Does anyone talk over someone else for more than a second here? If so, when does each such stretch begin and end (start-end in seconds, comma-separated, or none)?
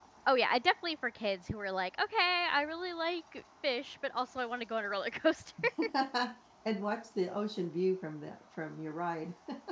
none